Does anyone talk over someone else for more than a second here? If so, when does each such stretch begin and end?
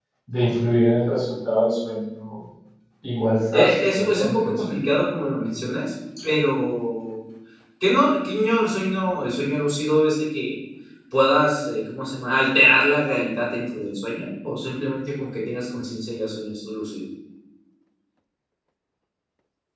3.5-4.9

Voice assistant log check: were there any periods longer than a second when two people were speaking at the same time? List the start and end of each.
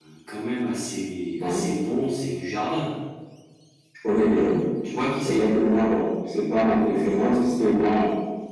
none

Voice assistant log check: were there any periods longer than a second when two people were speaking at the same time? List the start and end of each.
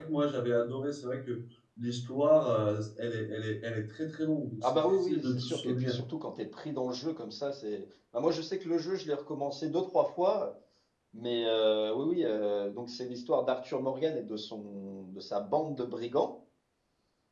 4.6-5.9

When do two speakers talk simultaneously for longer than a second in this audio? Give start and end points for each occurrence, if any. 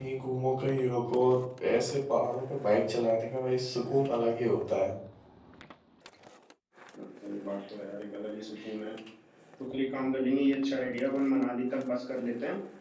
none

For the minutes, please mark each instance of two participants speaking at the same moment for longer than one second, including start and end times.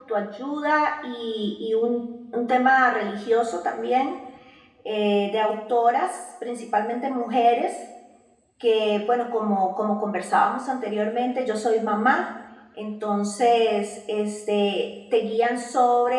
none

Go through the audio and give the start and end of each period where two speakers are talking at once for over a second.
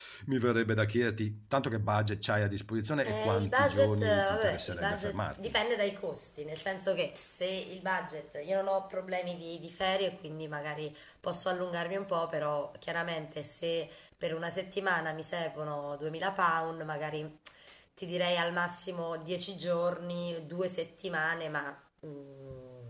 3.1-5.6

